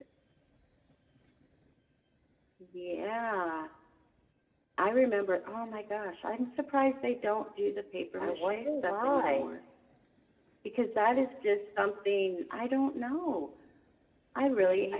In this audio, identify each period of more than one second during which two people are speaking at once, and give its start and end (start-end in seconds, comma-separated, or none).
8.2-9.5